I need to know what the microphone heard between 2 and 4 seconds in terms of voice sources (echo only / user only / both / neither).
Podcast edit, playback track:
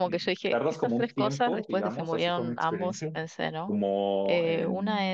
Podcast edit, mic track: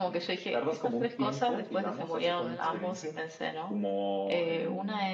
both